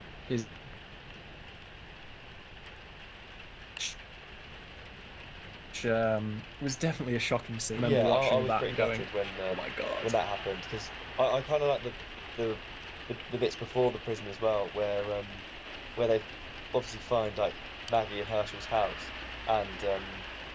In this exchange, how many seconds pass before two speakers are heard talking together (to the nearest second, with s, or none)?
8 s